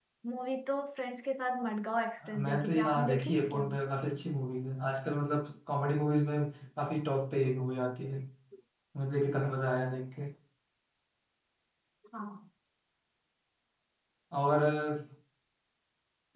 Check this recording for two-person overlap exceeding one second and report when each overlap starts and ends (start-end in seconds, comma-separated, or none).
2.4-3.8